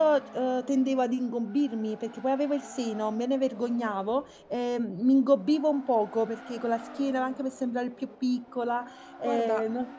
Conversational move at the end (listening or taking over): taking over